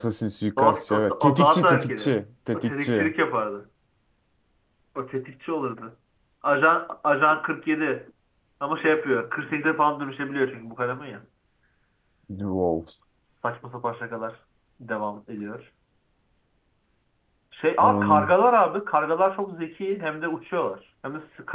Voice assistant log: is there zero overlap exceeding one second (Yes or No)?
No